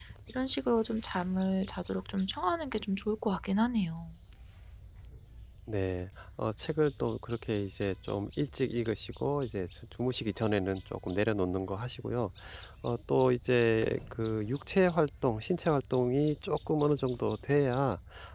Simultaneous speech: No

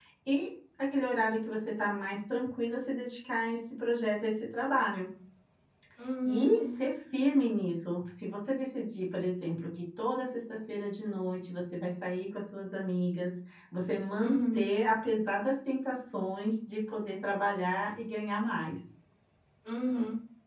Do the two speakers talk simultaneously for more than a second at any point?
No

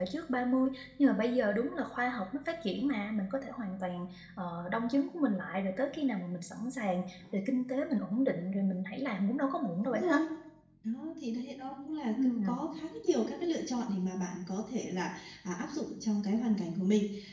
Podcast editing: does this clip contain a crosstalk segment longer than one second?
No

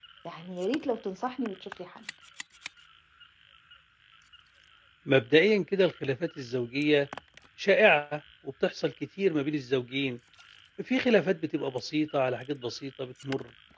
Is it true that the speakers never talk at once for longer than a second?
Yes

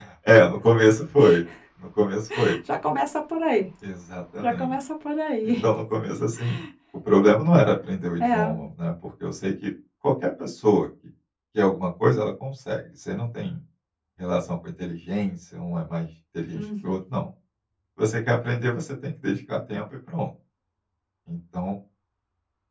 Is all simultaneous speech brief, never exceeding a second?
Yes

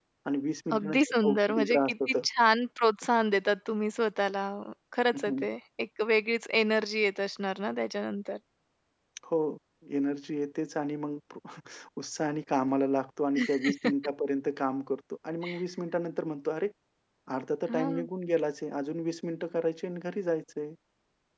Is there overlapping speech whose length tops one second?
Yes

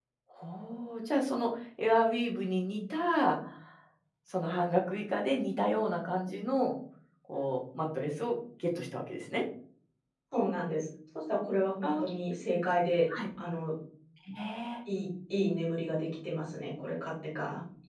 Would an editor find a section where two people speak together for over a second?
No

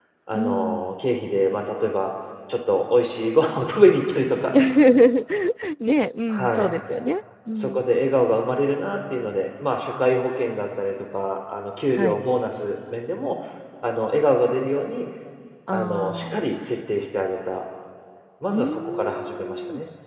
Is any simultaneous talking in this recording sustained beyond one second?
Yes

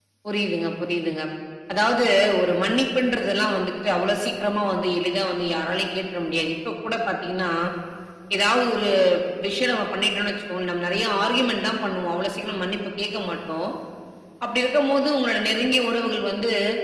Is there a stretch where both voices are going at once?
No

